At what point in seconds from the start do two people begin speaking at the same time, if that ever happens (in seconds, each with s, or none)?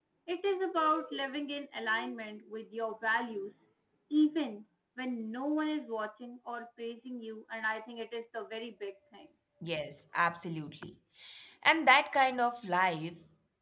none